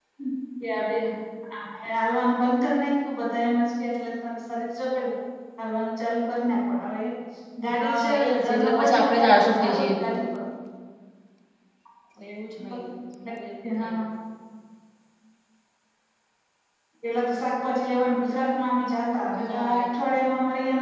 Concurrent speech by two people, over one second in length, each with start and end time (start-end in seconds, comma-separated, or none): 7.8-10.2